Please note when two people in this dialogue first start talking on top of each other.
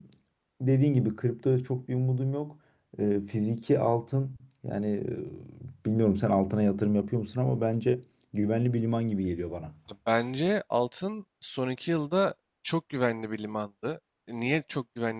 none

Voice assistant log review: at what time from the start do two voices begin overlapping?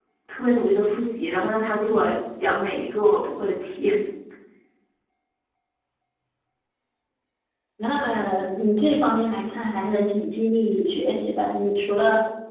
none

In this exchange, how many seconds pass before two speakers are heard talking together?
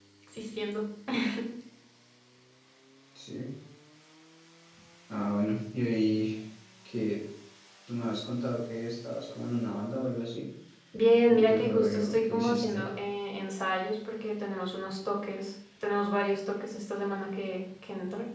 11 s

